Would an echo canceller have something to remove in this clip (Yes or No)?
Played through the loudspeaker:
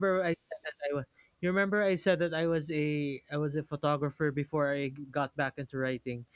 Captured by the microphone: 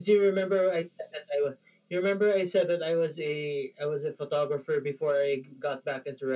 Yes